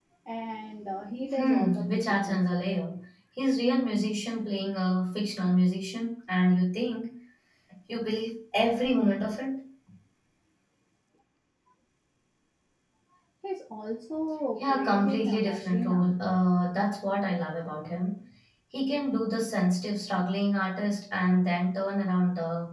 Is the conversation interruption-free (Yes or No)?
No